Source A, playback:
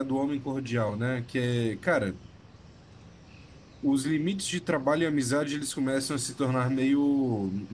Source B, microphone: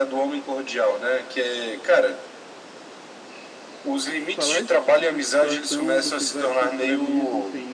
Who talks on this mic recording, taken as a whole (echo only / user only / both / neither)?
both